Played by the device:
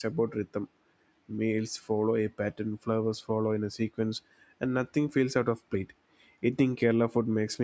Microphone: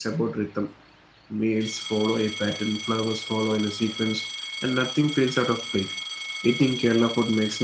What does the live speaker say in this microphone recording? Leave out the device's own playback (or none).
none